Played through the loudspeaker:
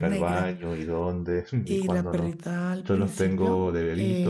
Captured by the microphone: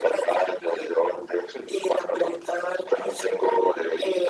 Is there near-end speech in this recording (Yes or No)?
No